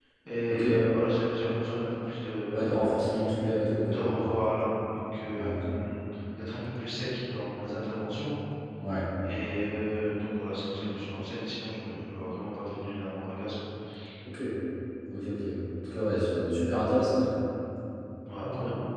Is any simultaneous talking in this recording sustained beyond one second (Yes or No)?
No